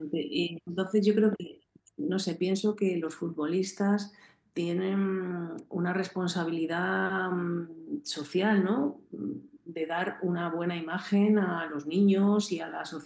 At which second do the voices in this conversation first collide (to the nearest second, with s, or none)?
none